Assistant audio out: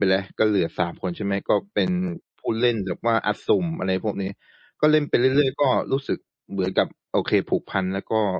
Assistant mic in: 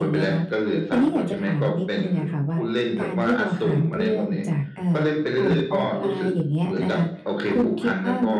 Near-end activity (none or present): present